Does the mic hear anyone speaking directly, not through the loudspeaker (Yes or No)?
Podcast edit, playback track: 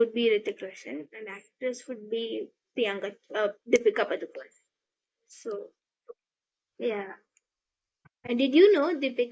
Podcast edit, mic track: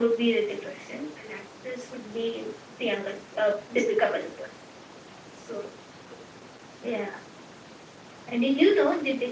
No